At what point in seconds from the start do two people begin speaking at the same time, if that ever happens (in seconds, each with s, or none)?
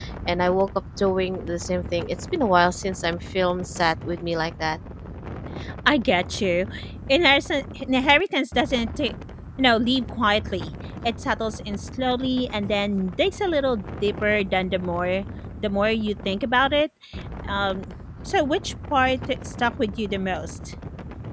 none